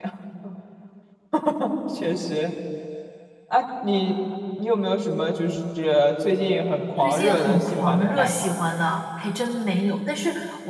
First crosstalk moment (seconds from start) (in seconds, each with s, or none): 7.0 s